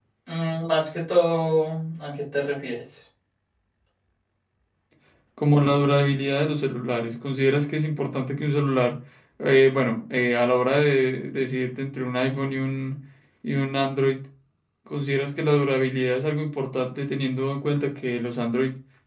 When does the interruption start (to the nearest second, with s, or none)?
none